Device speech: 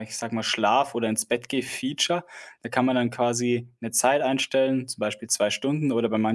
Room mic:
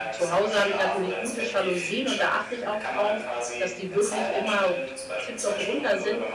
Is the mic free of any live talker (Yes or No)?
No